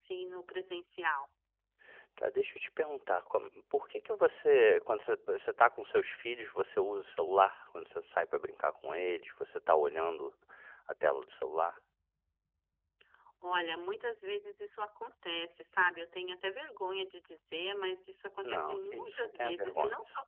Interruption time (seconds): 18 s

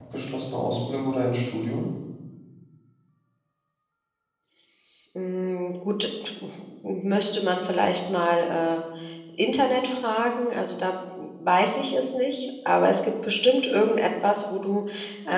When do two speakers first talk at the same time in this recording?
none

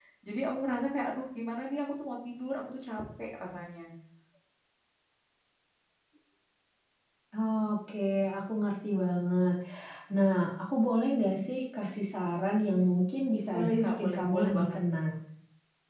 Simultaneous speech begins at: 14 s

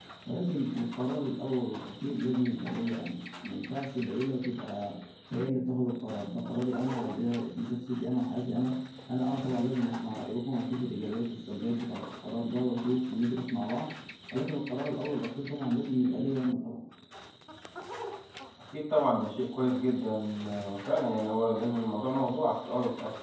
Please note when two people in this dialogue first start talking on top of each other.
none

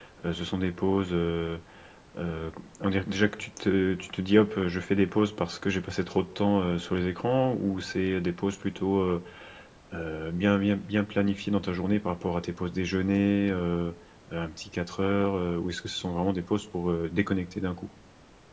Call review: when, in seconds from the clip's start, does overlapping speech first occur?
none

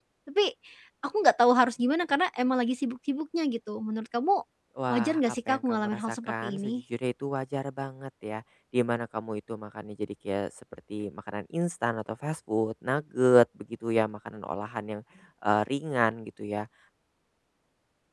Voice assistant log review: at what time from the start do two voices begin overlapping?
5 s

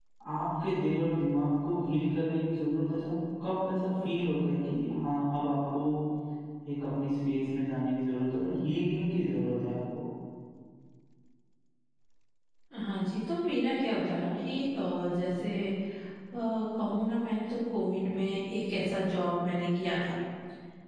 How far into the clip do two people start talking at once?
none

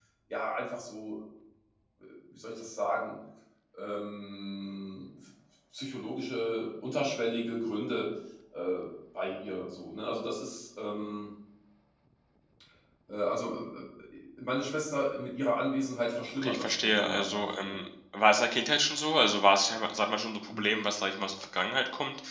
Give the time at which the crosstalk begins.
16 s

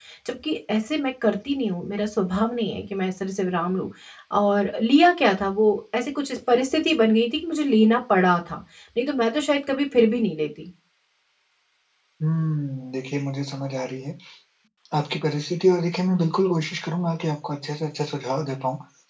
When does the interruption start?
none

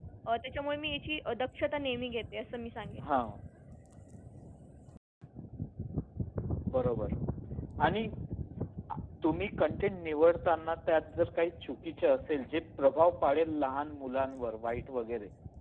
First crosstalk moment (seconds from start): none

